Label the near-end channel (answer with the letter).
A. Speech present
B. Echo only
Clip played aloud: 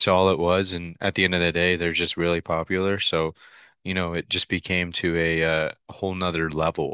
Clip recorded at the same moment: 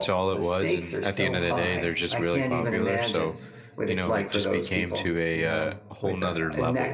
A